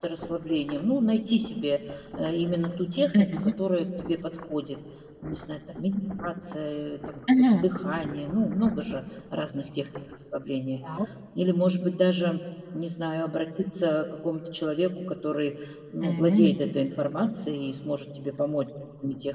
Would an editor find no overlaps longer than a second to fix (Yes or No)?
Yes